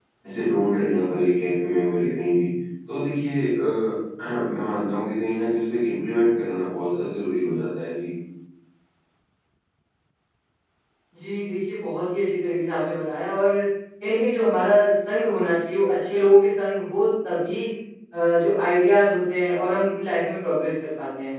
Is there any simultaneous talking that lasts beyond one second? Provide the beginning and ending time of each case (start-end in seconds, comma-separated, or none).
none